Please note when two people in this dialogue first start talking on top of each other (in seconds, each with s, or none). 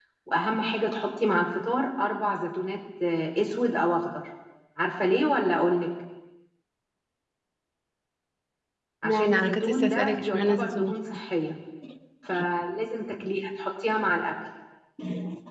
9.0 s